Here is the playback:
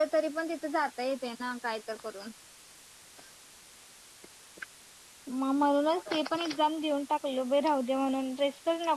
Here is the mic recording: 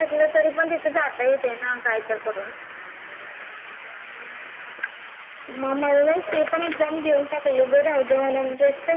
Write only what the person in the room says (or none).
none